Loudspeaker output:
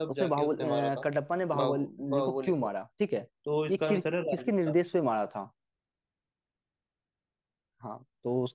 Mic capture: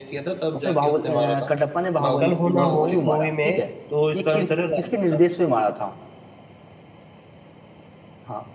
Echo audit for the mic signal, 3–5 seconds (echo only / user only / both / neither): both